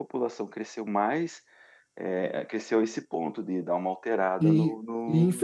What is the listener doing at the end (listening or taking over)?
taking over